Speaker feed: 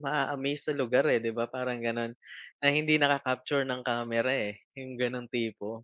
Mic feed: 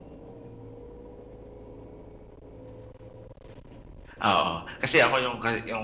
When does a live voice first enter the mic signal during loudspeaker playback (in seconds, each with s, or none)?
4.2 s